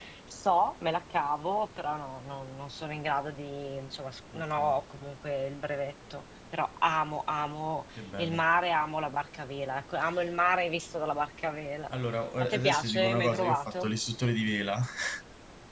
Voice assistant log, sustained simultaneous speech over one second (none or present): present